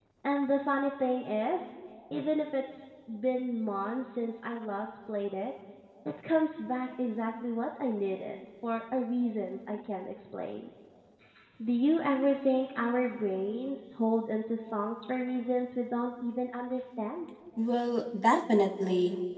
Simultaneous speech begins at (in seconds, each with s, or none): none